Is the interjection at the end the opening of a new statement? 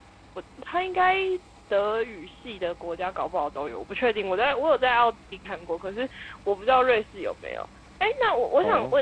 No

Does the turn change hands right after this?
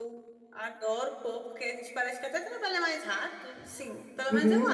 Yes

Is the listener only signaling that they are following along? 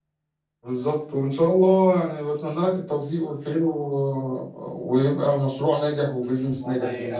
No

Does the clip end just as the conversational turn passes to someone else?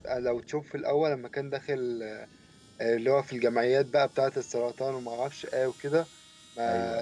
No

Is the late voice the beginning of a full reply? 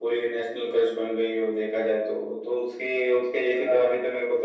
No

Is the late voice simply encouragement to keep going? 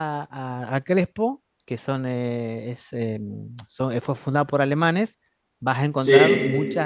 Yes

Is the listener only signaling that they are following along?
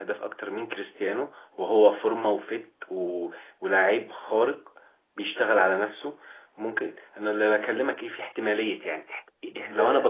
Yes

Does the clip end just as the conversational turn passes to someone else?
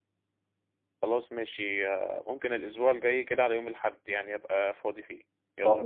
Yes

